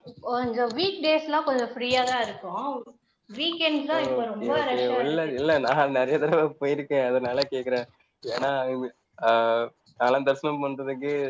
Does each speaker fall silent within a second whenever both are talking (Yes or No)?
No